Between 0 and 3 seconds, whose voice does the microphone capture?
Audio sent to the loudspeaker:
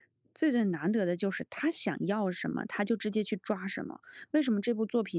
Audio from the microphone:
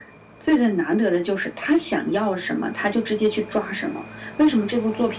echo only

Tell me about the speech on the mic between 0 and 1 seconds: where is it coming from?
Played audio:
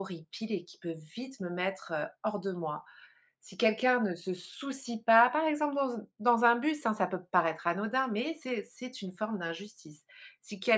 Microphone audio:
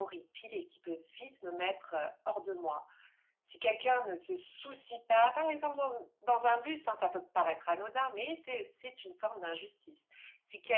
echo only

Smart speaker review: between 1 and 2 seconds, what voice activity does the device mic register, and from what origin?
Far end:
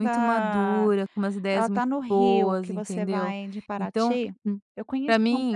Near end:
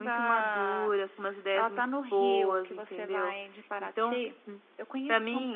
echo only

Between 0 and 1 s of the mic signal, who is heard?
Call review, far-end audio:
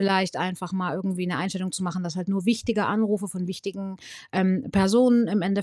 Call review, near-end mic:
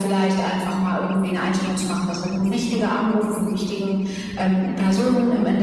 echo only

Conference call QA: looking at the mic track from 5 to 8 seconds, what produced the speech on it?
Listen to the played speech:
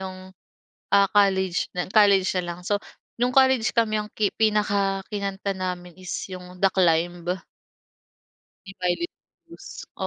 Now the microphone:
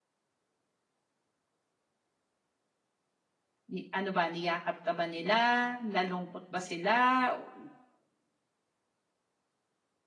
user only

